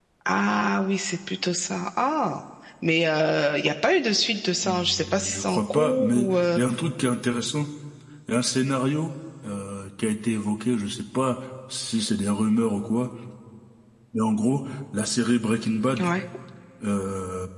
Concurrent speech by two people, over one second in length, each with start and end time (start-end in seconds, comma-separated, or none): 4.6-6.6